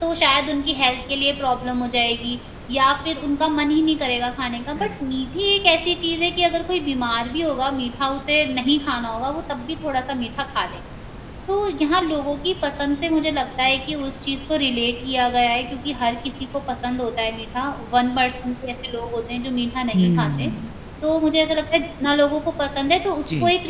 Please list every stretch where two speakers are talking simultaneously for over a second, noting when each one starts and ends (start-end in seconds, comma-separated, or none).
none